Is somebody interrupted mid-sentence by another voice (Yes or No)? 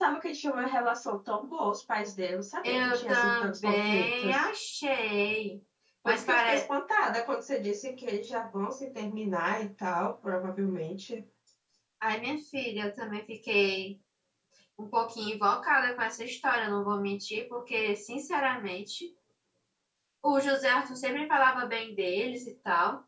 Yes